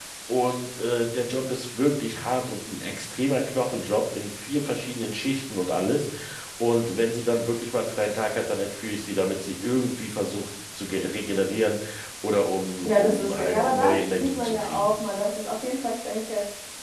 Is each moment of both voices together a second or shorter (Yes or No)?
No